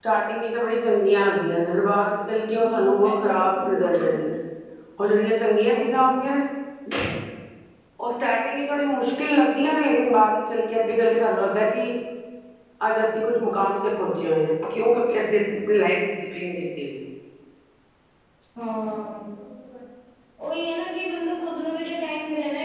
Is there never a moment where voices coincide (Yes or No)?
No